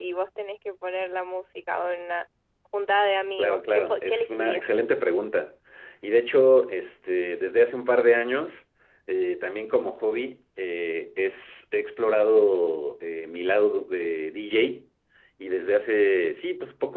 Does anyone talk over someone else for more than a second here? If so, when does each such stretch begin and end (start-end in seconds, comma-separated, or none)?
3.4-4.6